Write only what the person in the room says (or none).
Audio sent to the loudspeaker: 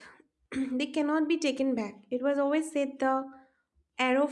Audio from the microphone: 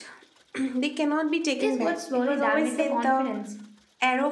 These words slowly damage the confidence.